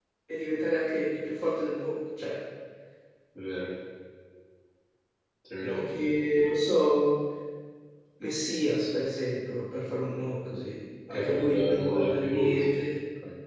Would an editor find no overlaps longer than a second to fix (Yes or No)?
No